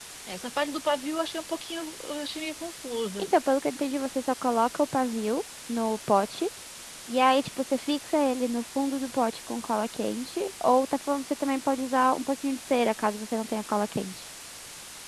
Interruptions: none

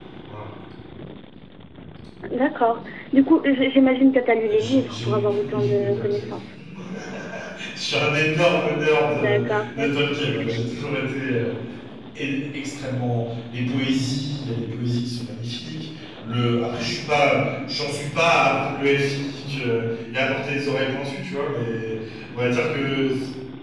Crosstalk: present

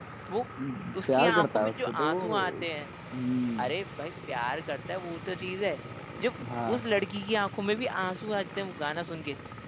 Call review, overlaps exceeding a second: present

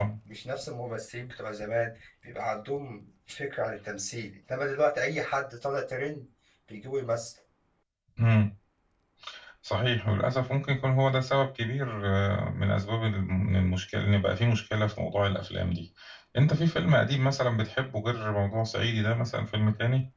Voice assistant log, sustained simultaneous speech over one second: none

